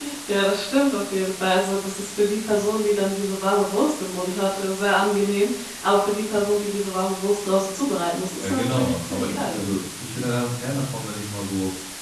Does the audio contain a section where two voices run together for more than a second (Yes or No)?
Yes